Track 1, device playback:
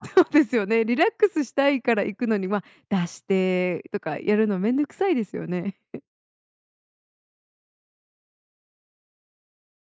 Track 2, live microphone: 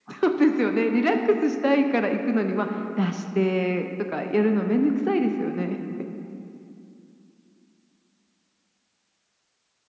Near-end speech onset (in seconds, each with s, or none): none